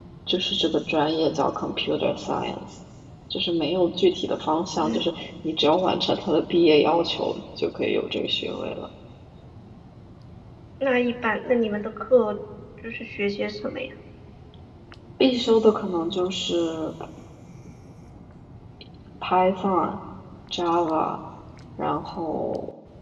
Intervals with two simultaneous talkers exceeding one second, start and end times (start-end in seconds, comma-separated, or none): none